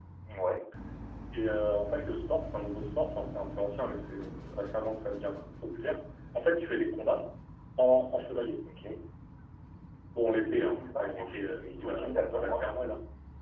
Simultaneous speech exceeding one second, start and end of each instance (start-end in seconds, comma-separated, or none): 10.5-12.7